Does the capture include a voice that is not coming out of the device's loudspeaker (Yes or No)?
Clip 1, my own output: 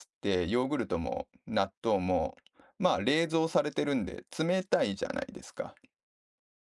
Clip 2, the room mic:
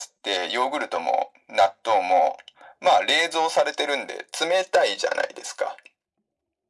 No